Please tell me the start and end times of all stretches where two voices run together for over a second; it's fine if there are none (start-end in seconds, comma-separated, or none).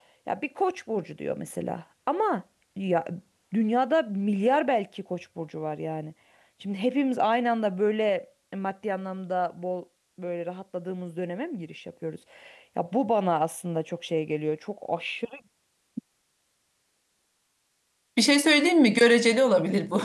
none